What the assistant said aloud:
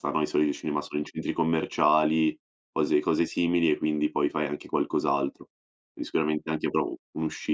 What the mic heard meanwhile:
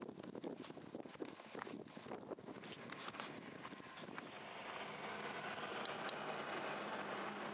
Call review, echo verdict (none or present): none